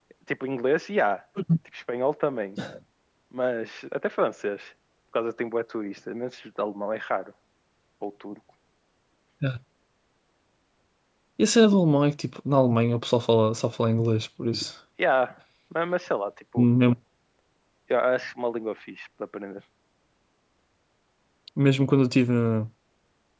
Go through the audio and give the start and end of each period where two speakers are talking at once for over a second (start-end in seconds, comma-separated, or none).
none